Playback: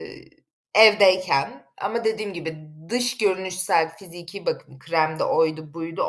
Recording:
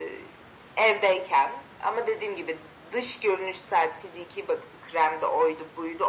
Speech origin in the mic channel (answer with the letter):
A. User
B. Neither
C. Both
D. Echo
D